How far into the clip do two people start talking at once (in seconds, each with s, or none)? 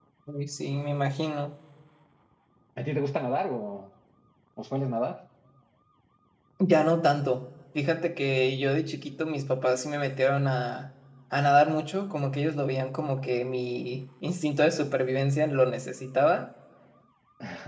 none